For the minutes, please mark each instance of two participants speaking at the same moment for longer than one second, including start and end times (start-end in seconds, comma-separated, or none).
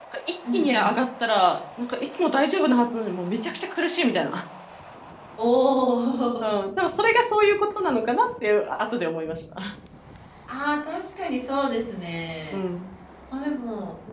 none